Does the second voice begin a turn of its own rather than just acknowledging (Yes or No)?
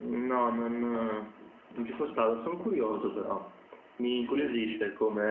No